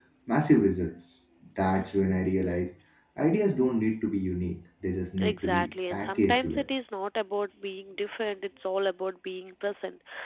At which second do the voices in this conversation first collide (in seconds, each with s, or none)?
5.2 s